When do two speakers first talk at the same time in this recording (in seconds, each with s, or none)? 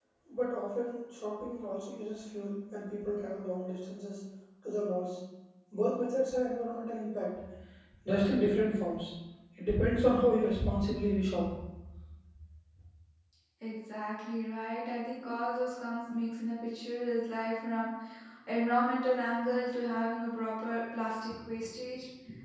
none